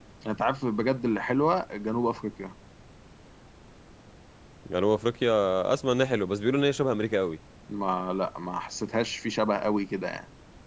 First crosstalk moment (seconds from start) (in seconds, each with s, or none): none